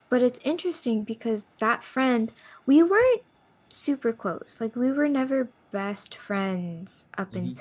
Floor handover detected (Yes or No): No